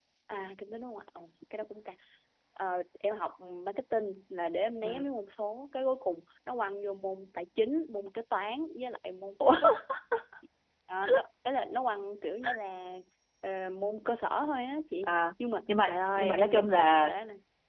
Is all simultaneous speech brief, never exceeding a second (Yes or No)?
No